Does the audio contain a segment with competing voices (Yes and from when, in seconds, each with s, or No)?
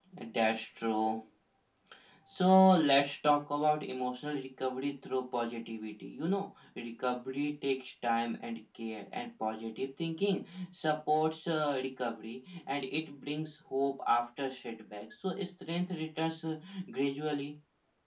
No